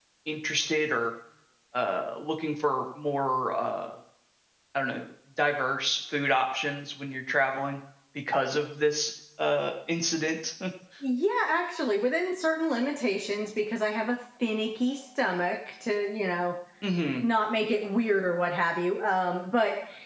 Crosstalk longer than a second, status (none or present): none